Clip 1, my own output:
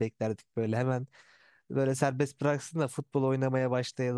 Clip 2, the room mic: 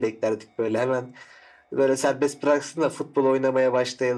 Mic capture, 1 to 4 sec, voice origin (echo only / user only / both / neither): echo only